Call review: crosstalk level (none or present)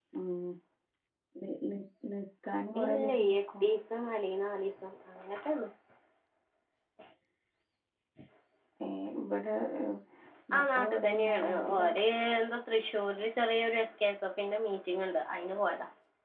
present